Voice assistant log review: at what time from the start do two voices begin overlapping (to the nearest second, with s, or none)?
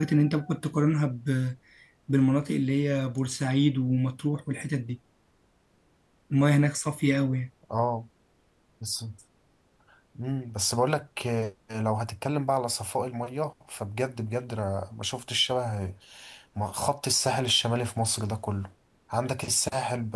none